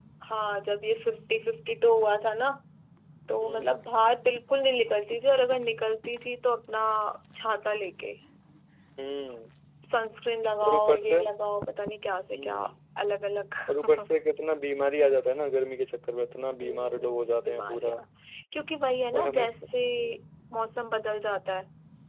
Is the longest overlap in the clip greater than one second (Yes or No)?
Yes